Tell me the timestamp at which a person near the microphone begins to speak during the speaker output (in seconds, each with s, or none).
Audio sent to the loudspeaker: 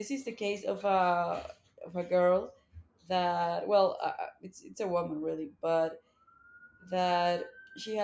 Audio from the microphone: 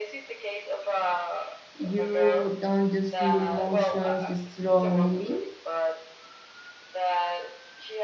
1.7 s